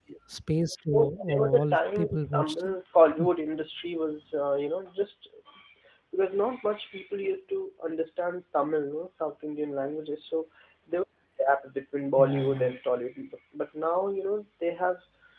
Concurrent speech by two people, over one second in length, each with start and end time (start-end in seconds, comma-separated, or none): 0.7-2.6